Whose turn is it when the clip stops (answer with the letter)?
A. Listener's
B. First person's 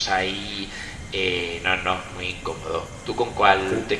A